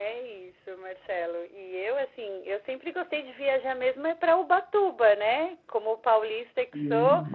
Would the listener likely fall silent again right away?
Yes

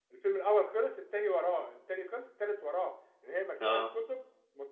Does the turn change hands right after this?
No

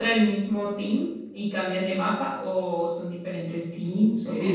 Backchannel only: No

